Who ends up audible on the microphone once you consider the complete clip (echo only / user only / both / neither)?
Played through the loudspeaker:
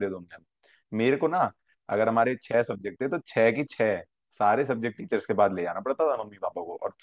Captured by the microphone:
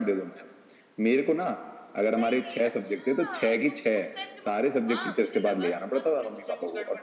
both